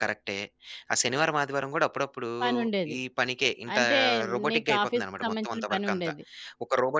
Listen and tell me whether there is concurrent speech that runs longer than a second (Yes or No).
Yes